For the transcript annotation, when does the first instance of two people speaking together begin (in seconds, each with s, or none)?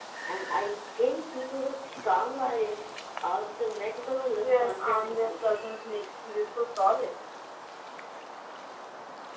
4.4 s